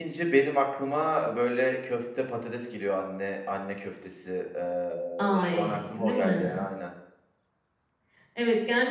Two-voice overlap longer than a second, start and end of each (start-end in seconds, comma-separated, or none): 5.4-6.7